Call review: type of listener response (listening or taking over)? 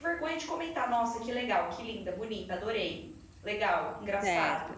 listening